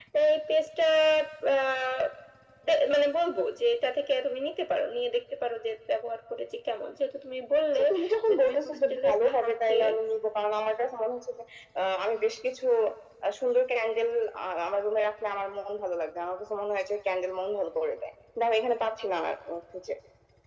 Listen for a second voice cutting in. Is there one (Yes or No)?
Yes